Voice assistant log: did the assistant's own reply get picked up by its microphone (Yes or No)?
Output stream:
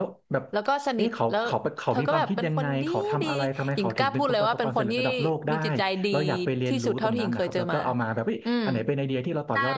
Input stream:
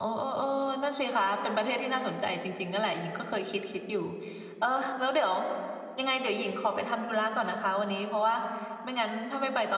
No